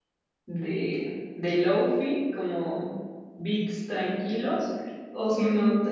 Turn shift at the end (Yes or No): No